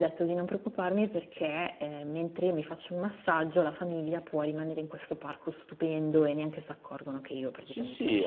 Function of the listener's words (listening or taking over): taking over